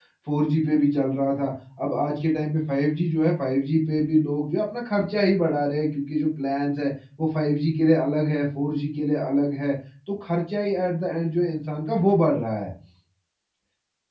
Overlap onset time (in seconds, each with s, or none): none